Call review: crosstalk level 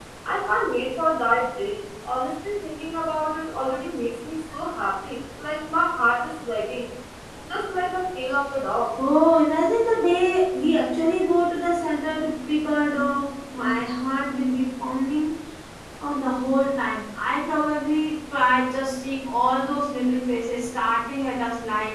none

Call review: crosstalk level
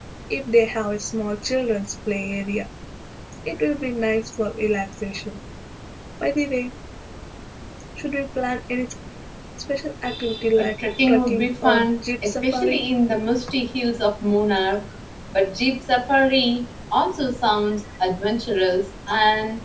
present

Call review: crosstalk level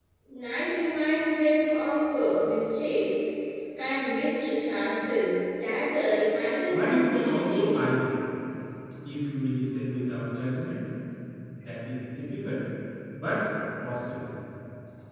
present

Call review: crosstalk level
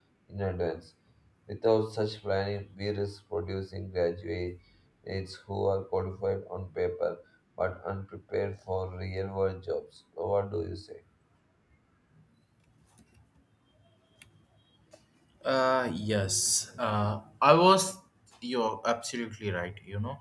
none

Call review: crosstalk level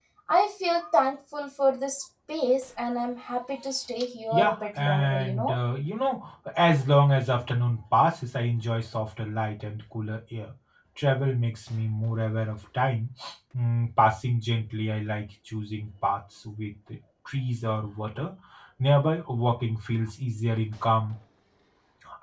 present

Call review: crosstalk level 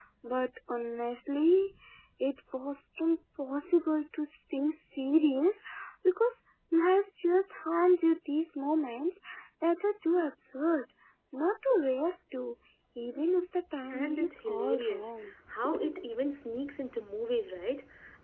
present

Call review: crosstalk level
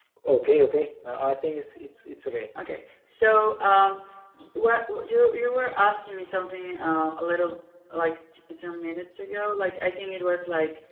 none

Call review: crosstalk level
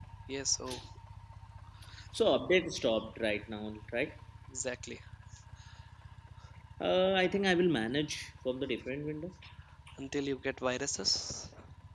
none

